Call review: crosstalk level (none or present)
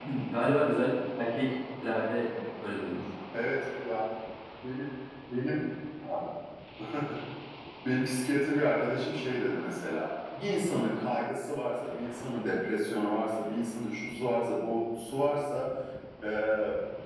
none